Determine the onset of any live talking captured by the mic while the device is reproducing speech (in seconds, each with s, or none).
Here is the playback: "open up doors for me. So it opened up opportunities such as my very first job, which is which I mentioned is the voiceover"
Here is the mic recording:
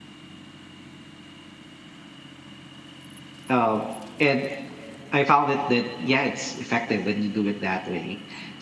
3.5 s